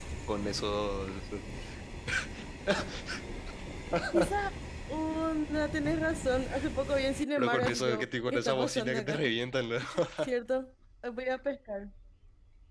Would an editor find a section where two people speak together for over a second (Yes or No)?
Yes